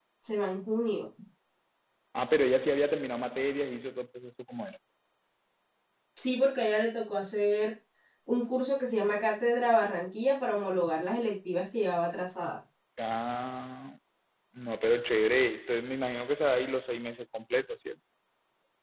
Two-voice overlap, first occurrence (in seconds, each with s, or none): none